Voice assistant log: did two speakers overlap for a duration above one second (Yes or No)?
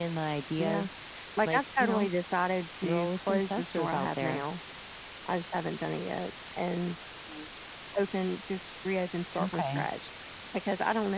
Yes